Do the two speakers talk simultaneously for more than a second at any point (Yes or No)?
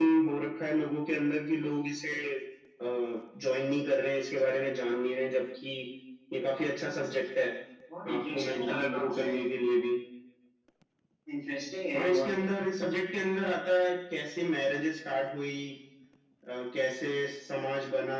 Yes